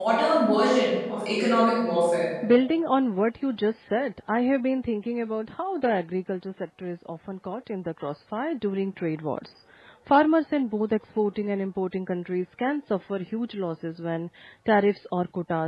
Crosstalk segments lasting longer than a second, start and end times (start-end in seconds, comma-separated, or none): none